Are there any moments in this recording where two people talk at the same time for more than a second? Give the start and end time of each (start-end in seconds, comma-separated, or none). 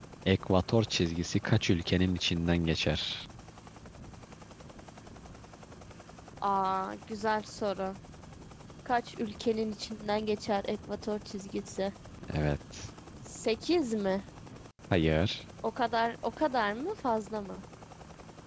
none